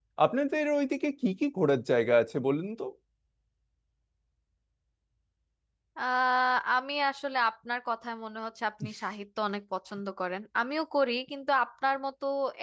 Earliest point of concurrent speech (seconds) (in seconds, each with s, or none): none